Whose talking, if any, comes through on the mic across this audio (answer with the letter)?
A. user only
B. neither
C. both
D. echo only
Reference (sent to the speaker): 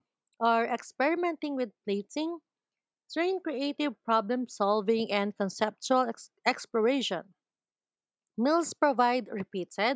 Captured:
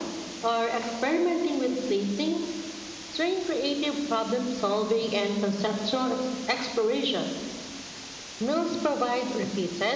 D